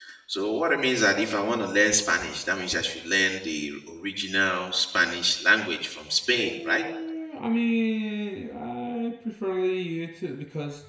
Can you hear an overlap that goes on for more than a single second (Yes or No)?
No